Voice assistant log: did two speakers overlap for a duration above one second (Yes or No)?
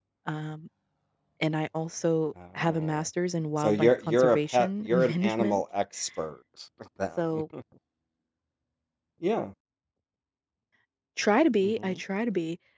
Yes